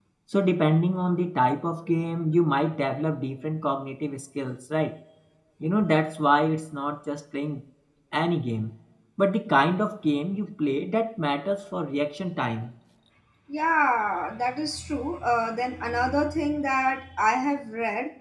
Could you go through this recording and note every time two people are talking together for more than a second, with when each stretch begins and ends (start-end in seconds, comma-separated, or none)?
none